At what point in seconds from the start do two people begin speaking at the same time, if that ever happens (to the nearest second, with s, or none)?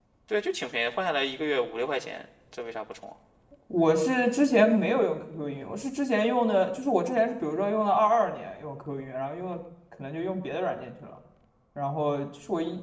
none